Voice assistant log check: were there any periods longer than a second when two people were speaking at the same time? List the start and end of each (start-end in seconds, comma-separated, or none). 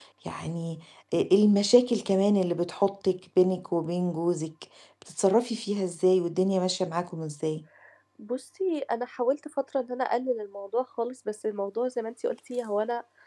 none